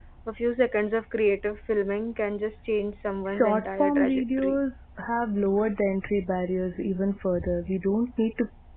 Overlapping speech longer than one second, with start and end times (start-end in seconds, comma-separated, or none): 3.3-4.6